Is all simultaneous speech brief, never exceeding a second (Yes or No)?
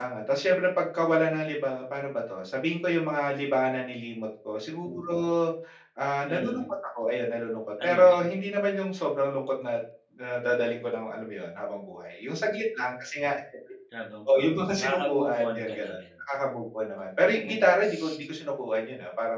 No